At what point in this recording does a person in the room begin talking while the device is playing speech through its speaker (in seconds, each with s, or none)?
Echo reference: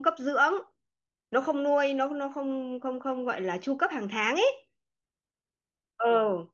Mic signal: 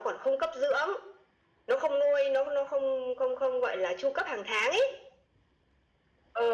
none